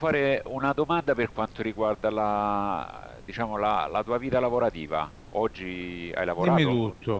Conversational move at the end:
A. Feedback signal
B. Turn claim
B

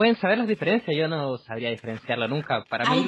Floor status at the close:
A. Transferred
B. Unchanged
B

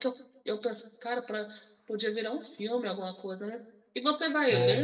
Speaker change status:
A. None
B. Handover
A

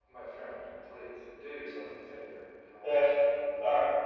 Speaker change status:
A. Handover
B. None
A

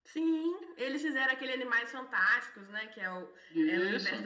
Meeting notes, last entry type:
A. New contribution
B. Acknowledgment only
B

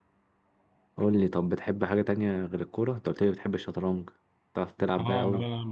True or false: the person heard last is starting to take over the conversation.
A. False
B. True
B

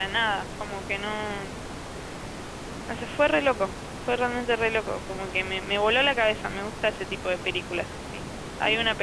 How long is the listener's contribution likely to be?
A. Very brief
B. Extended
A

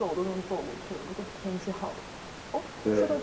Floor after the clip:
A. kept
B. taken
A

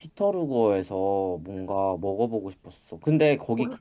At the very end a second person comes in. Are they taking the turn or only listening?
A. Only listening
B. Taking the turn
A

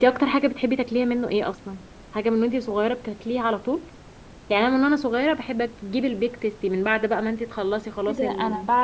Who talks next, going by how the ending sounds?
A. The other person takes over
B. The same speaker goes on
A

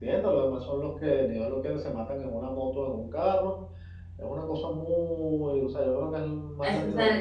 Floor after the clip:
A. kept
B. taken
B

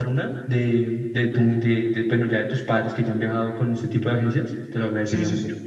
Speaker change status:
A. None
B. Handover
B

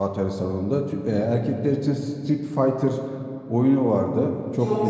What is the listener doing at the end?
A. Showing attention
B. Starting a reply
B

